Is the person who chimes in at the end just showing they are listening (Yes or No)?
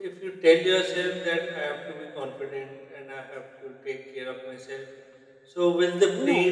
Yes